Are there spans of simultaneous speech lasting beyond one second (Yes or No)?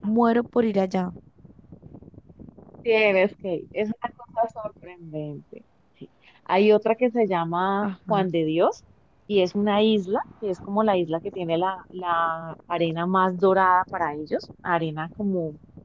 No